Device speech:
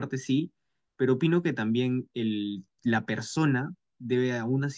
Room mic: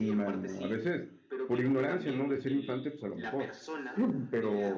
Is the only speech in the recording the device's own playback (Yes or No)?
No